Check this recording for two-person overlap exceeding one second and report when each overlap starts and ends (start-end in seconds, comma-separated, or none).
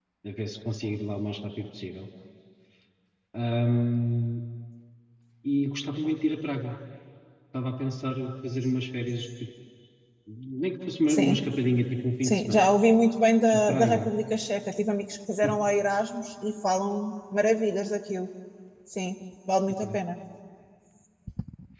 none